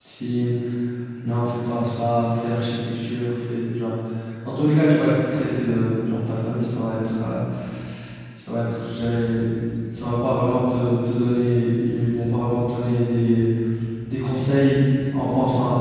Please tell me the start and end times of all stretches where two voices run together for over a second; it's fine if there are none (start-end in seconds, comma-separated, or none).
none